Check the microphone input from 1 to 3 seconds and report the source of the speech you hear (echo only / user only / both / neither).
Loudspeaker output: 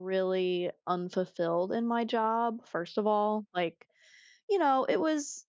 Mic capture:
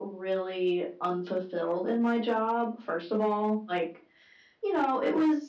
echo only